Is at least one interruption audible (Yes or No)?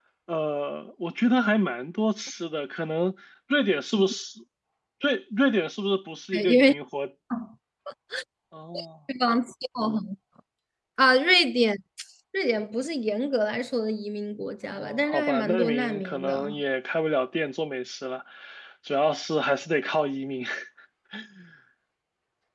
Yes